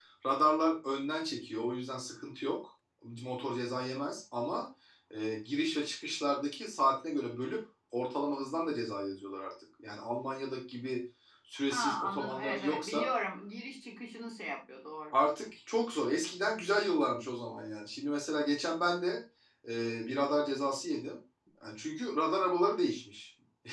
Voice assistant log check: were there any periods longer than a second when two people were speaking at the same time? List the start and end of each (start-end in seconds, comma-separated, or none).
11.7-13.1